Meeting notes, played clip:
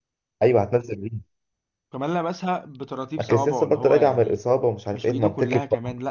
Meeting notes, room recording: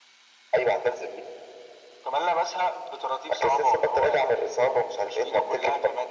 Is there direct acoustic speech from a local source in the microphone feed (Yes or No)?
No